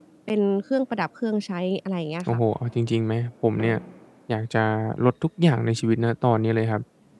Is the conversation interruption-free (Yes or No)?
Yes